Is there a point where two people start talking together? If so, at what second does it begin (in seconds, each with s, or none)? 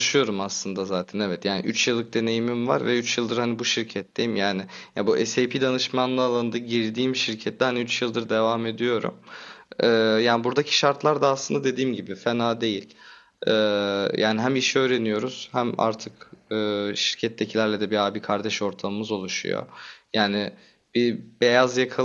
none